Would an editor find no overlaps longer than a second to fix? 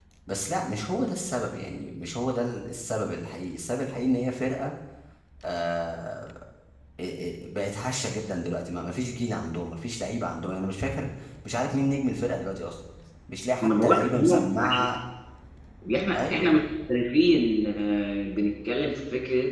No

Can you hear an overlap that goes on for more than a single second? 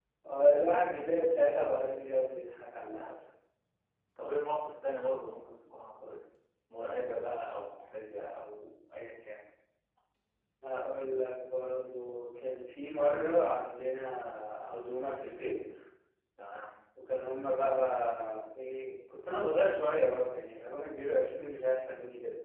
No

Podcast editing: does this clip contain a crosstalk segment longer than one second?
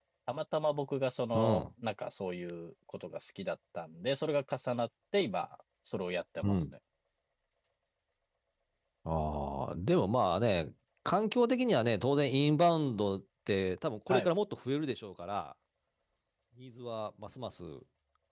No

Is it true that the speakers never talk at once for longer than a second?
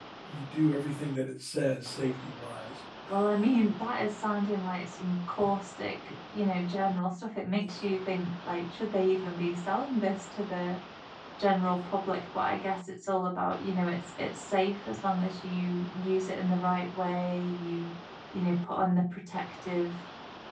Yes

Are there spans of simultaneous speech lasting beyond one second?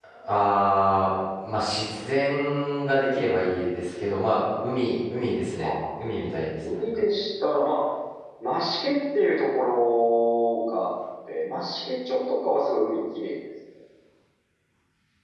No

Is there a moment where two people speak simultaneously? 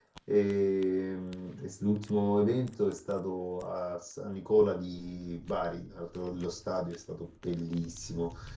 No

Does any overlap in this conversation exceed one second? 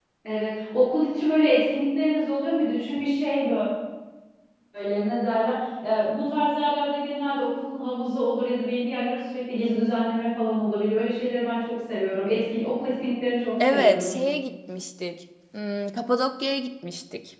No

